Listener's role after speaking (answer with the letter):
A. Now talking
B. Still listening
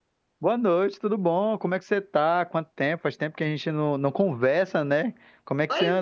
A